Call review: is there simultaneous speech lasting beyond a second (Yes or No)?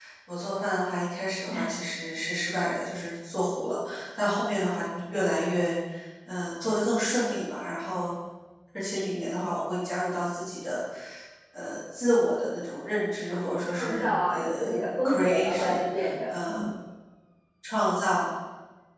Yes